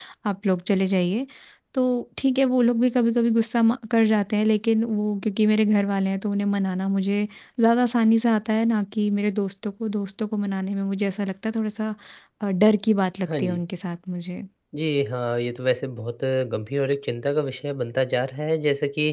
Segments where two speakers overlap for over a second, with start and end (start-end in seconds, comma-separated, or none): none